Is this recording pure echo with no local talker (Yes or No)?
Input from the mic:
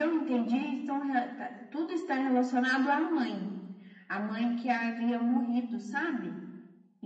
Yes